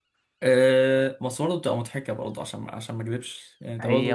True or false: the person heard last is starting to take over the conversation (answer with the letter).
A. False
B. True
B